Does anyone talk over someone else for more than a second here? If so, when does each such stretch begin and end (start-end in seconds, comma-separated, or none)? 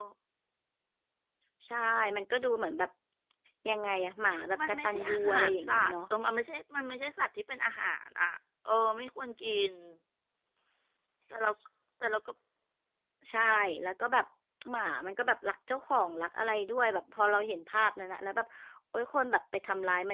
4.7-5.9